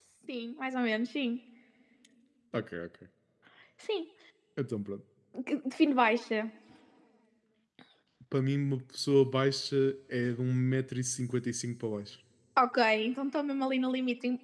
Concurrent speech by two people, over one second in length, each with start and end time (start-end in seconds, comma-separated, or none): none